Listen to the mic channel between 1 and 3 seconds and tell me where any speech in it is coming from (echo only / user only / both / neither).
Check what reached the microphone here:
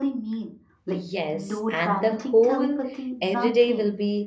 both